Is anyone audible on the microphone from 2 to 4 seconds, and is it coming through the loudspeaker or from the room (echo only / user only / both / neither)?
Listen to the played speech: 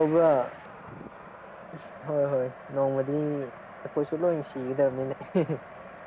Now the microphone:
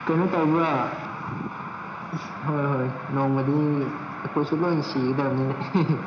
echo only